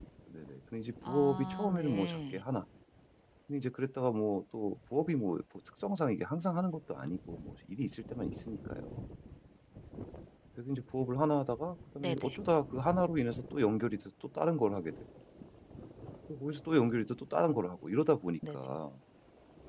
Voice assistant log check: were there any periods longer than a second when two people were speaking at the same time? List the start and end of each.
1.1-2.4

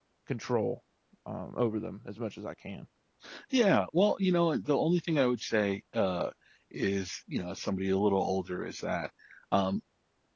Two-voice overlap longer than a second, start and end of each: none

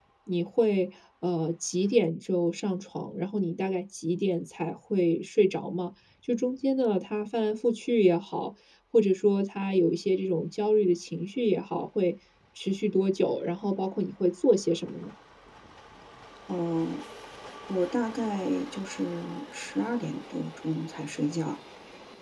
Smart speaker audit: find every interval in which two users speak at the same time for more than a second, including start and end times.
none

